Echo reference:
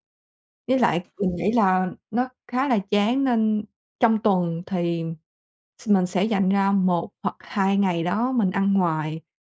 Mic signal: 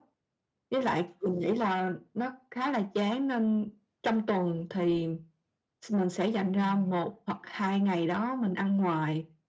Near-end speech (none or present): present